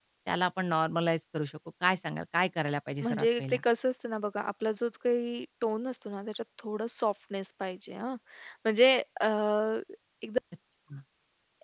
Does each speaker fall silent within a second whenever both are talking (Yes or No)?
Yes